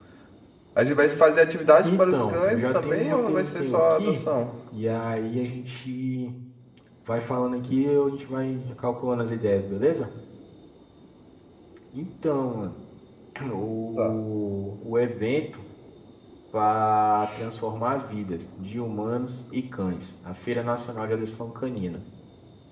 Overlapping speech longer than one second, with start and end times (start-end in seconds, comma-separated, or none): 1.9-4.2